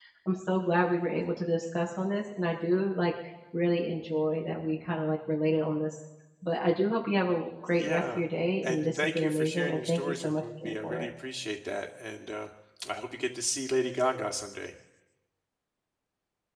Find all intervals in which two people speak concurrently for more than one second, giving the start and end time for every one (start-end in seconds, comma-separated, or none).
8.6-11.1